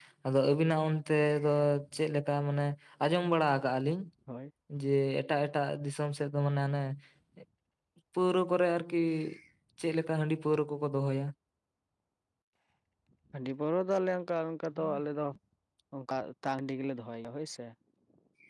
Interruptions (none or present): none